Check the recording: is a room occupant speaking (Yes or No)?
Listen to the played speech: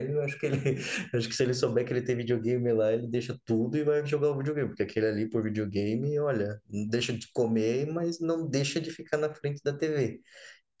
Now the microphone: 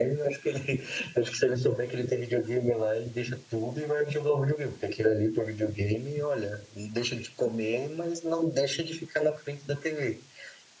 No